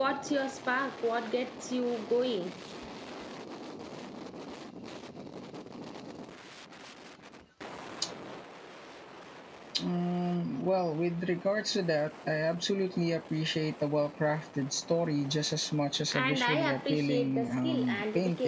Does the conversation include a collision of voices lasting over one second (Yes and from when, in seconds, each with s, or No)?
Yes, from 16.1 s